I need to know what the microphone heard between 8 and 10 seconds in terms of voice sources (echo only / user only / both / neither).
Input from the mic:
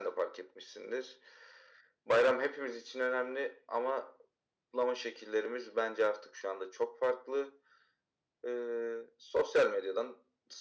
echo only